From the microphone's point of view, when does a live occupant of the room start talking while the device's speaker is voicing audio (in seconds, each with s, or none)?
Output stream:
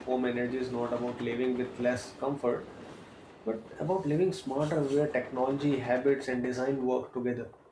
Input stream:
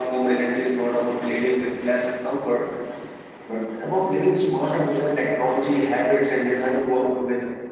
none